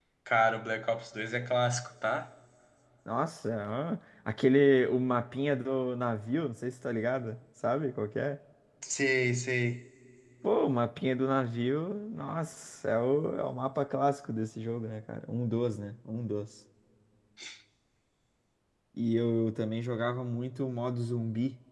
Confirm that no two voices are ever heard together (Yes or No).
Yes